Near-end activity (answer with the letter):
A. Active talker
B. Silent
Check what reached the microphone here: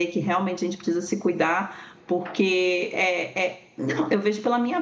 A